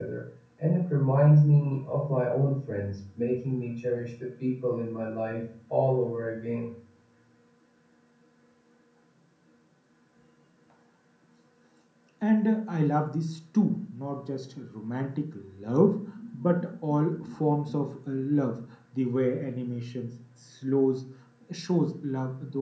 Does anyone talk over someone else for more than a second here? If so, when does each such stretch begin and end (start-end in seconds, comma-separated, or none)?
none